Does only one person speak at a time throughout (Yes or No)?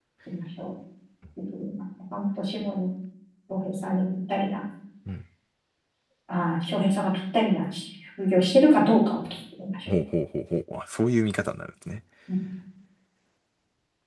Yes